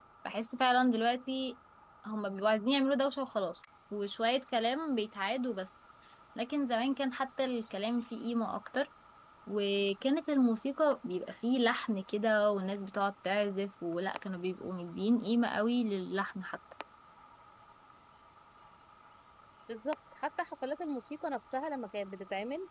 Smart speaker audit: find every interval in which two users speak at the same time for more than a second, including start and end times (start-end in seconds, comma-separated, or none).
none